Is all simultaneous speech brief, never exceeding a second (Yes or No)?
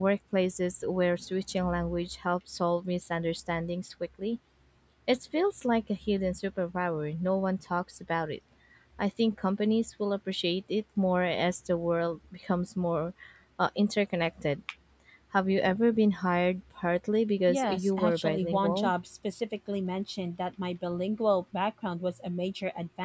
No